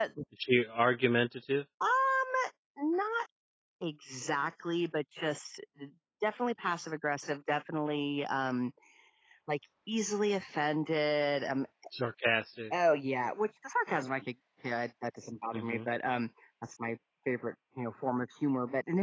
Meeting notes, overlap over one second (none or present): none